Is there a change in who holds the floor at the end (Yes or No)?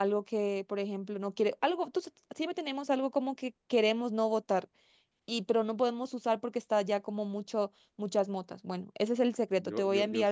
Yes